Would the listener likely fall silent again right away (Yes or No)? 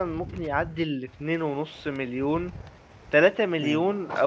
Yes